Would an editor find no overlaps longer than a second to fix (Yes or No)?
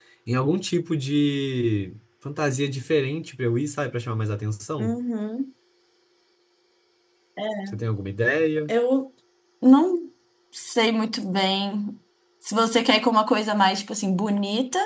Yes